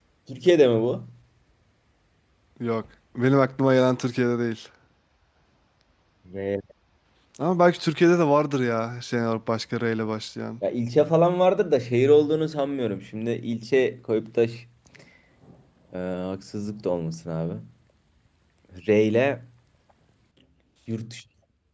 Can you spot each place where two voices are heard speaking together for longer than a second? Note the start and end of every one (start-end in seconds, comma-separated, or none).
none